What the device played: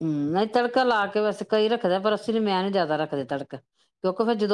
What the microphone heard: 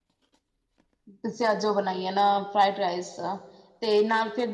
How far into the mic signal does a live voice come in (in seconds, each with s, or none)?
1.1 s